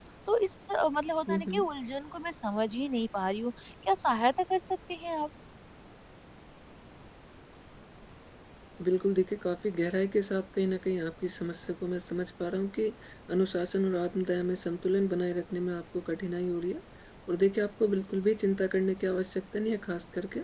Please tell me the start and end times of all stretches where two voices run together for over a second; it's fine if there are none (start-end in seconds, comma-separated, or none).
none